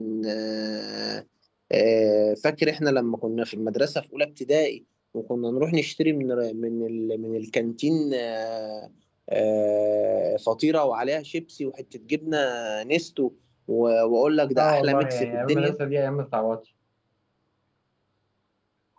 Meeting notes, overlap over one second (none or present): present